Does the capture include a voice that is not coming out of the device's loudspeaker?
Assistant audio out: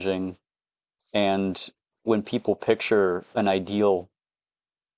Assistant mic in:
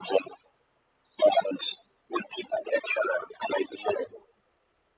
No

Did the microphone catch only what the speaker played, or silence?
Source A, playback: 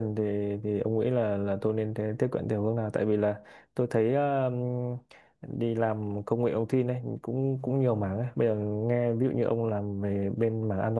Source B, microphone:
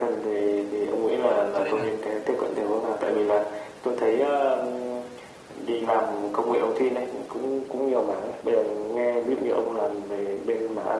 No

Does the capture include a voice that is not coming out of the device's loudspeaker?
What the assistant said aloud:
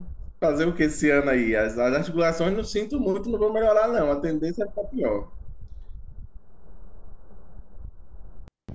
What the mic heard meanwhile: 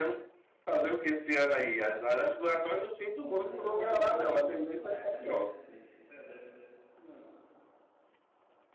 Yes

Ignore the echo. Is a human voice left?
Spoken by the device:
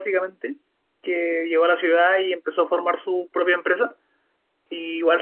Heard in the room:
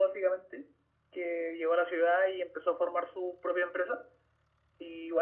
No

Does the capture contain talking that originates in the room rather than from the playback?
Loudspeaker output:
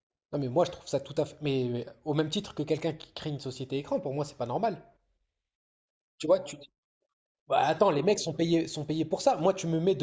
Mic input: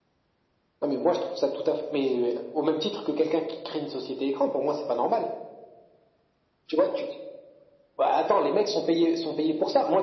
No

